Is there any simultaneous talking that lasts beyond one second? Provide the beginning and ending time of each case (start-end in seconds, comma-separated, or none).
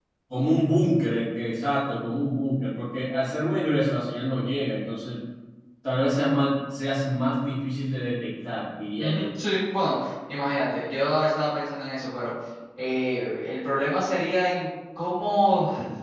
none